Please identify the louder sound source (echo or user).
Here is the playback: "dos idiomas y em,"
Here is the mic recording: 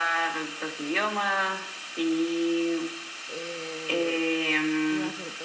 echo